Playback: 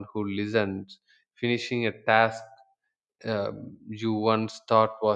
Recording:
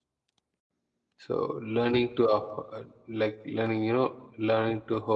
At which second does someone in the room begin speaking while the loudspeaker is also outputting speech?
1.3 s

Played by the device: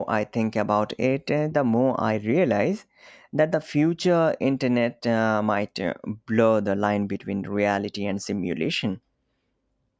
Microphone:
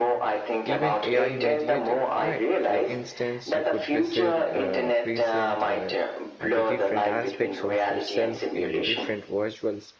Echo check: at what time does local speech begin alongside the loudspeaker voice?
0.6 s

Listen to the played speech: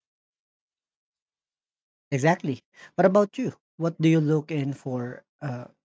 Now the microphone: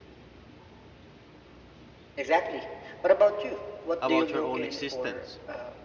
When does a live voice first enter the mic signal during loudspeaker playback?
4.0 s

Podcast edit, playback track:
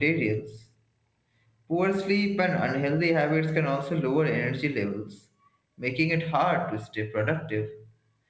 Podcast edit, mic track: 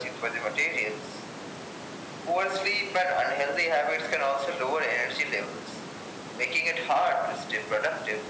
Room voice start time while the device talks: none

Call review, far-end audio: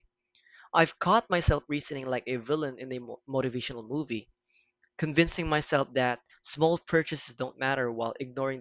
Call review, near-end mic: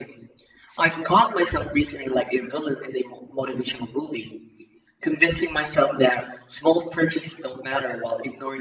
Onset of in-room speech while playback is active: none

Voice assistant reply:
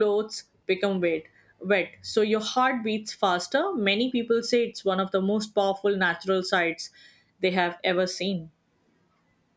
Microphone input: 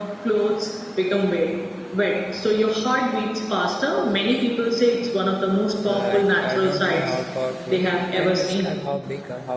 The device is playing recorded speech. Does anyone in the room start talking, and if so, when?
5.8 s

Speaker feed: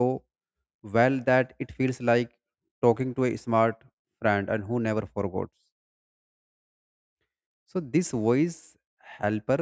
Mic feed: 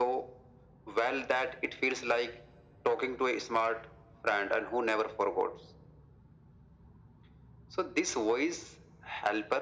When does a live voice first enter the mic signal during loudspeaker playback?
none

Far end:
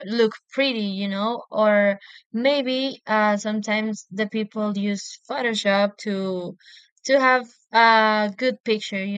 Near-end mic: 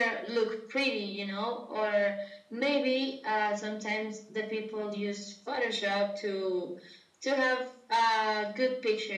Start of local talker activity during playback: none

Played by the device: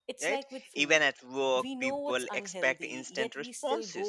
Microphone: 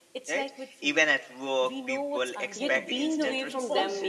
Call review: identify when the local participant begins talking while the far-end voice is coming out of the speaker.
2.5 s

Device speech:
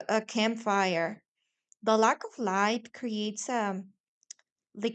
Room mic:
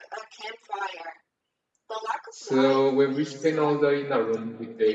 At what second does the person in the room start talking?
2.3 s

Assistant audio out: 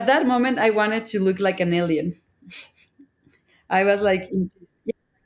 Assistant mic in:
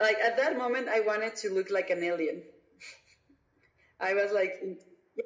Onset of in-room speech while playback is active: none

